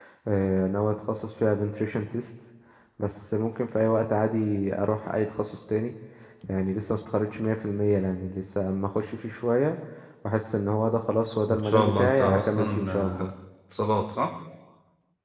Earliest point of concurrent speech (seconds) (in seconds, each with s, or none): 11.4 s